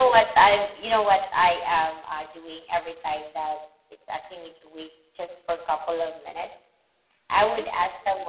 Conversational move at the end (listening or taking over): listening